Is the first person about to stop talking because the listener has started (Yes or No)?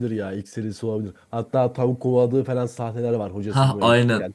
Yes